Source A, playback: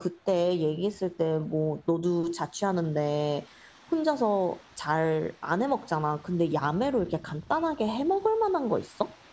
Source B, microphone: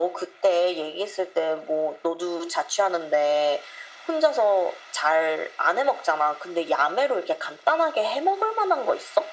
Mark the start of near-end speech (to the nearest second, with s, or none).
none